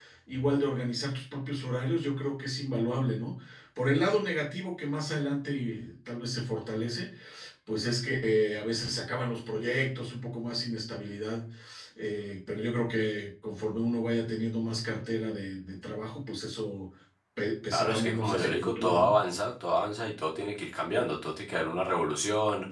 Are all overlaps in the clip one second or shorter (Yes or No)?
No